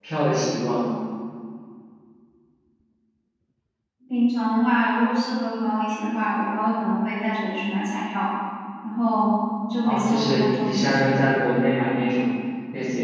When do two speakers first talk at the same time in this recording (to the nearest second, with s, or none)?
10 s